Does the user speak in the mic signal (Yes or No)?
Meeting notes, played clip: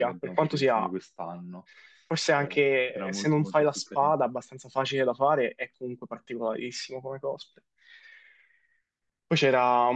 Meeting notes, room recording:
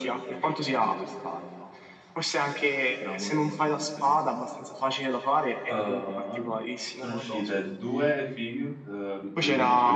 Yes